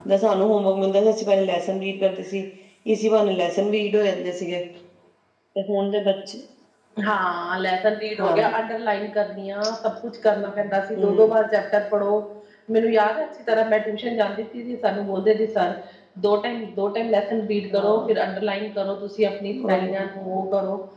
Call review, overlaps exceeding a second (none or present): none